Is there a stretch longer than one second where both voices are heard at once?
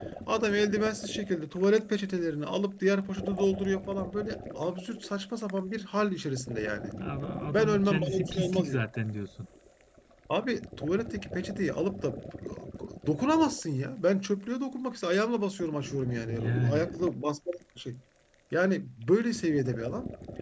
Yes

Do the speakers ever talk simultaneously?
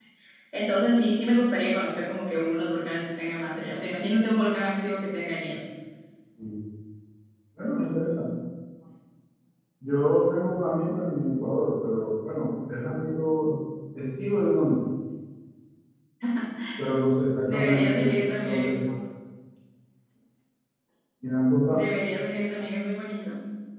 Yes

